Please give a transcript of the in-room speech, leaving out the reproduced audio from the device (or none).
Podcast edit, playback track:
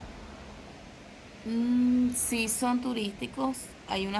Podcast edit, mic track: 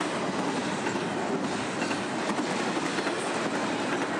none